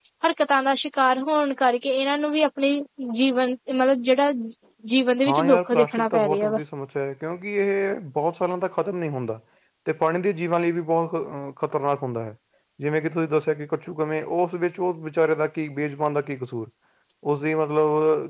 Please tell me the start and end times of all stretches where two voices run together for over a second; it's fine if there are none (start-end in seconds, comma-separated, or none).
5.3-6.6